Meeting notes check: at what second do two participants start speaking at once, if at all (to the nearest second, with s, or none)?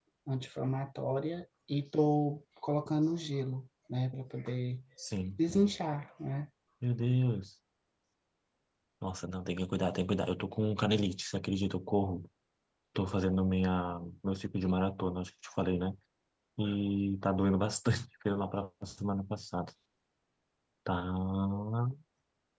none